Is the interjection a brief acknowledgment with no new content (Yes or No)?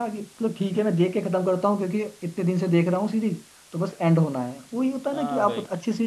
No